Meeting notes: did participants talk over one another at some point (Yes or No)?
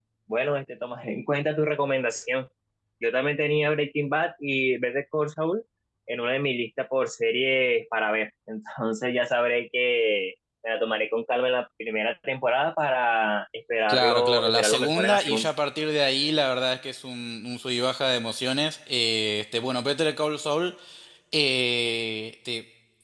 Yes